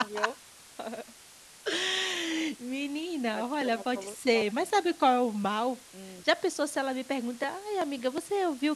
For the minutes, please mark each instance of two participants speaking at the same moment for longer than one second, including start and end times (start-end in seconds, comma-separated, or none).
3.3-4.7